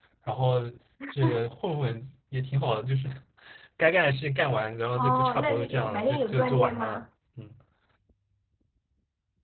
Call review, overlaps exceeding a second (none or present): present